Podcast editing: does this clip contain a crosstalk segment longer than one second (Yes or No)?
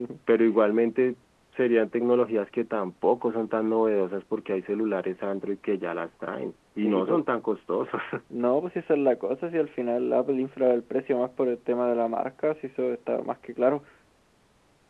No